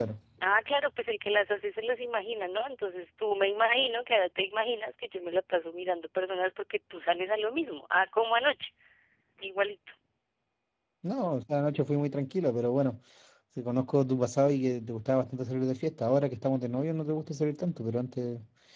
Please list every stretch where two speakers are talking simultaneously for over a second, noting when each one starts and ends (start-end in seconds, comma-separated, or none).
none